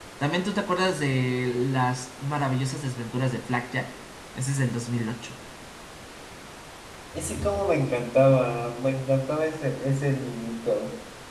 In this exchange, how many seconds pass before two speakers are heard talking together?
none

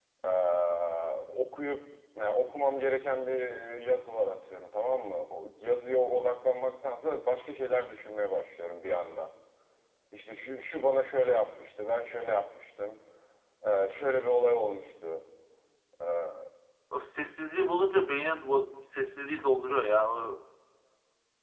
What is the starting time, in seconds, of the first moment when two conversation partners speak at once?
none

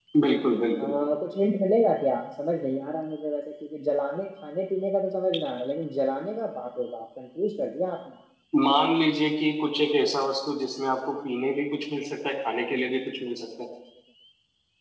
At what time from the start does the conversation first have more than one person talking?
none

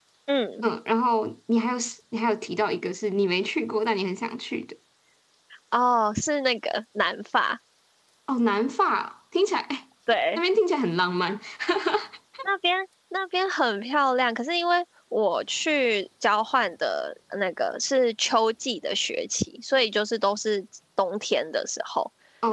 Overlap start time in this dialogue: none

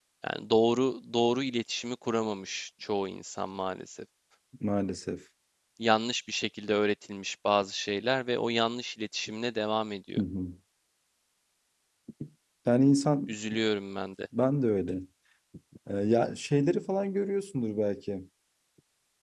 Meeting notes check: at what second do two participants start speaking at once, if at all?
none

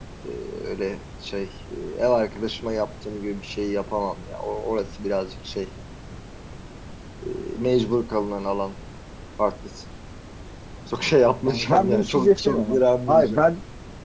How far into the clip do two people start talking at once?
11.4 s

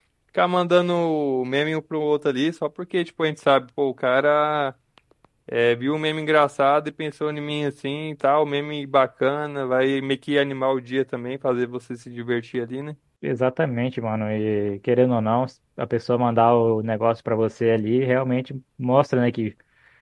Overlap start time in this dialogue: none

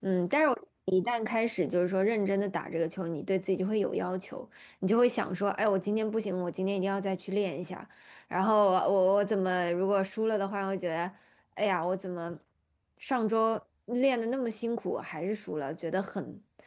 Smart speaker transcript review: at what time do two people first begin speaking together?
none

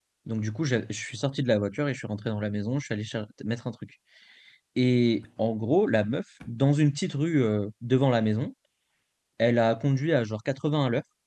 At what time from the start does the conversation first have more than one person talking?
none

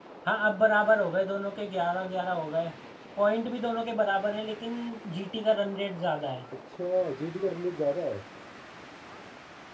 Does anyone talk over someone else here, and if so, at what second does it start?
none

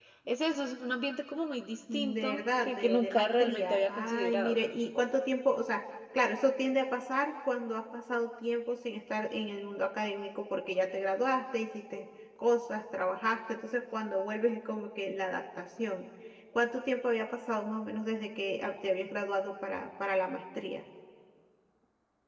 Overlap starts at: 1.9 s

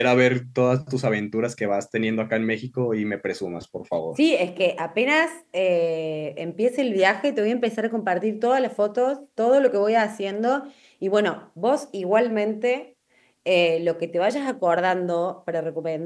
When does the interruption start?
none

